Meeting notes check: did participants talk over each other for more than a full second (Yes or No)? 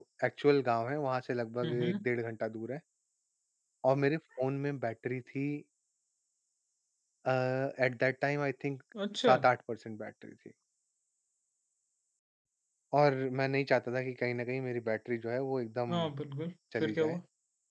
No